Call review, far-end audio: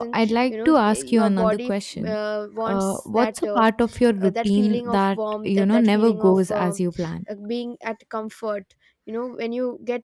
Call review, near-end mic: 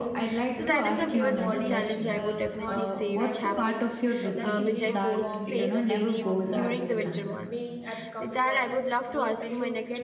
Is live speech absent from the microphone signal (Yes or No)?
No